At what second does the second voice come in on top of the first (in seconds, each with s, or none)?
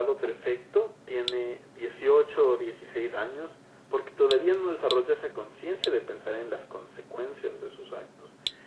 none